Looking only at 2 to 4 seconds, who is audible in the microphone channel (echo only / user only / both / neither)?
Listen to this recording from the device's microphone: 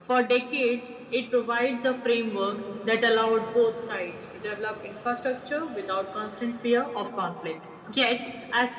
echo only